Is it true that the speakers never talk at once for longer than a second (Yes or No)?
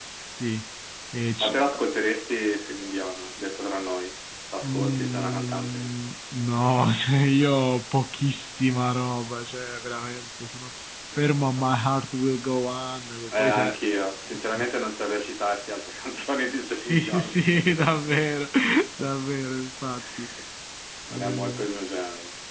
No